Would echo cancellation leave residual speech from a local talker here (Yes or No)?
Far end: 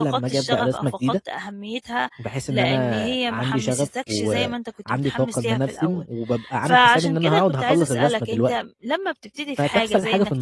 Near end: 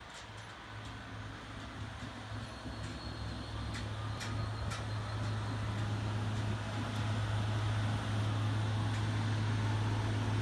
No